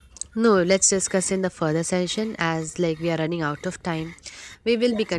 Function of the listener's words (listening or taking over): listening